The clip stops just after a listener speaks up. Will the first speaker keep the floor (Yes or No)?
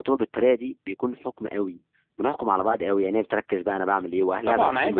No